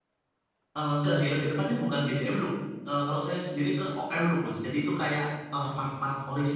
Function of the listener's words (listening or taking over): listening